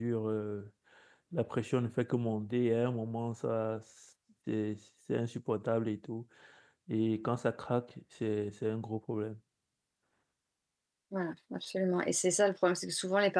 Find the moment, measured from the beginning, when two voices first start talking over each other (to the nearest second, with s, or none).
none